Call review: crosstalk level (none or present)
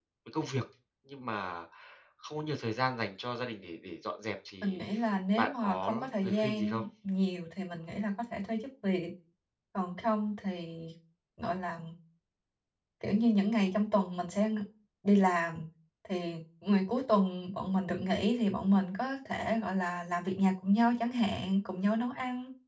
present